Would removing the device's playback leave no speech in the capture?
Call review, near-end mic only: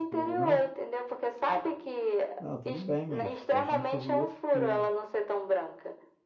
No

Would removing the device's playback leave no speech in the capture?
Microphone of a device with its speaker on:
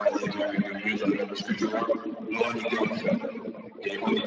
Yes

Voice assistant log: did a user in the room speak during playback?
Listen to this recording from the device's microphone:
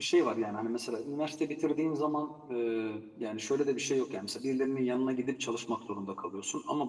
Yes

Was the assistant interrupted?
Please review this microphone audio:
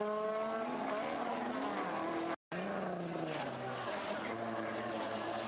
No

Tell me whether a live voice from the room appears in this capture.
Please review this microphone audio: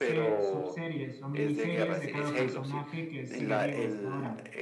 Yes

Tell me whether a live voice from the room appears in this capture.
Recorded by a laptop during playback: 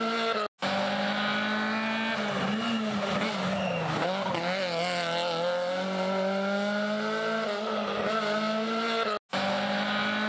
No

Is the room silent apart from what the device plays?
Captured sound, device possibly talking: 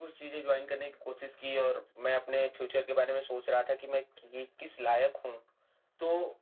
Yes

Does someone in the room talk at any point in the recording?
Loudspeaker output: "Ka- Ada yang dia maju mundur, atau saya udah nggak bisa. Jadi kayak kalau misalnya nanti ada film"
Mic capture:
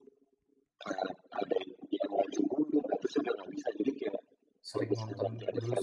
Yes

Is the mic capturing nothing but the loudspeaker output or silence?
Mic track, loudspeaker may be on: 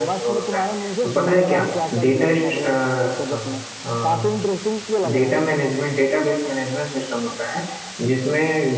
No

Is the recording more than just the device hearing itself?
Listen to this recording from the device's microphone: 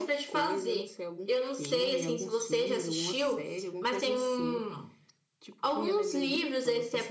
No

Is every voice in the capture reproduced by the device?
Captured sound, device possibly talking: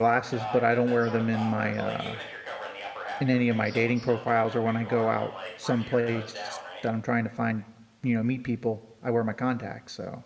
No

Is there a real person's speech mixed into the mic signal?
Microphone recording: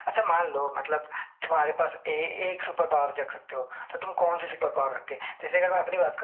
No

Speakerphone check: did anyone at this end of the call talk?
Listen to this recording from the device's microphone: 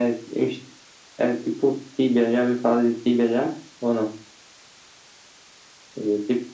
No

